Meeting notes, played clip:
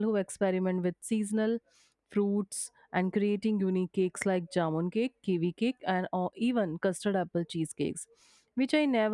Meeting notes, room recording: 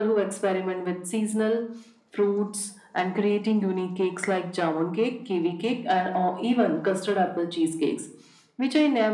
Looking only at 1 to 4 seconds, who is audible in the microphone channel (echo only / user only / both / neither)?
echo only